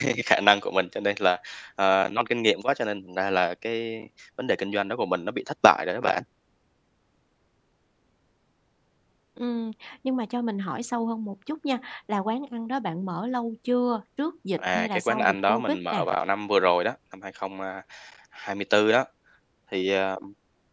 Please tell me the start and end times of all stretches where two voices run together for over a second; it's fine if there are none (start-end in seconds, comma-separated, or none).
14.6-16.1